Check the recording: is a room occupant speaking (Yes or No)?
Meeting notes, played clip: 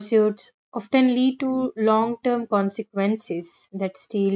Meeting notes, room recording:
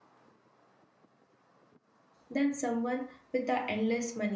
Yes